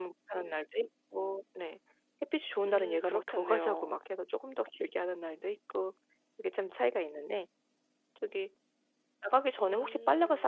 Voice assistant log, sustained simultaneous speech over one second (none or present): present